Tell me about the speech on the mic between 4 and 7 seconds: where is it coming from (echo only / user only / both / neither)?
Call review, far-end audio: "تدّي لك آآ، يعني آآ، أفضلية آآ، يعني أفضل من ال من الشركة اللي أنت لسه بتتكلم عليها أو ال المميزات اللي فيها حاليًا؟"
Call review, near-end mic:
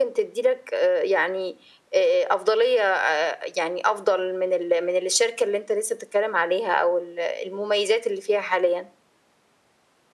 echo only